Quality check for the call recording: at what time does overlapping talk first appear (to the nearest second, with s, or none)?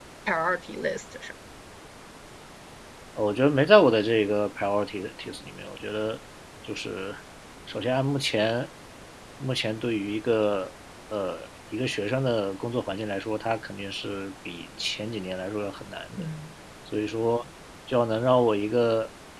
none